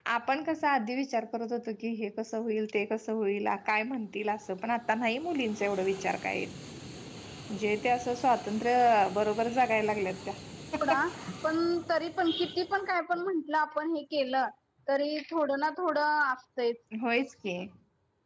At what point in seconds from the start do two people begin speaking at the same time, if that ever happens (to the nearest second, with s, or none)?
none